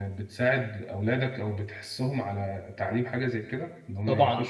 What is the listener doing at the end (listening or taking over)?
taking over